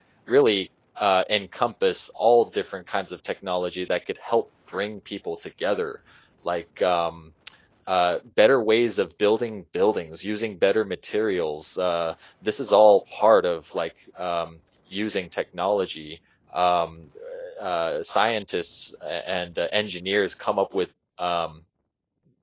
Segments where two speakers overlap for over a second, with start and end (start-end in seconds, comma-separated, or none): none